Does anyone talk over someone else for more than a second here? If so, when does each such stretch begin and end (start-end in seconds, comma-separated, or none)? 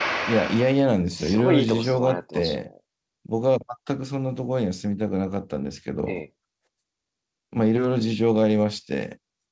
1.2-2.6